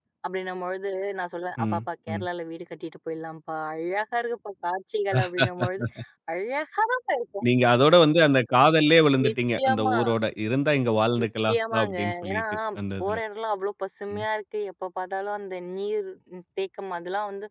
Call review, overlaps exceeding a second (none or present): present